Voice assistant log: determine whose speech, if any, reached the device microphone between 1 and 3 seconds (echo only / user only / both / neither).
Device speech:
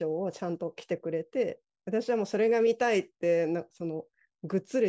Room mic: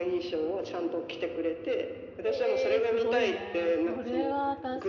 both